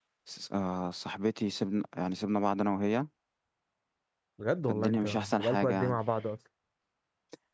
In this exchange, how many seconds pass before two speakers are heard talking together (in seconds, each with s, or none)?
4.7 s